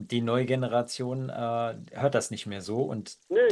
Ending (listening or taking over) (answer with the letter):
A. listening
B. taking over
A